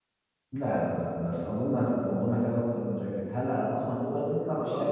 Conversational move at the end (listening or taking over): taking over